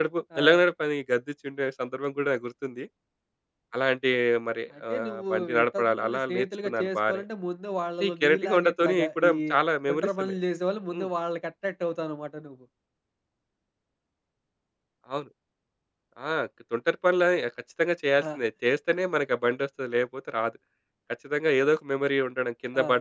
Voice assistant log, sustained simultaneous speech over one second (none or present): present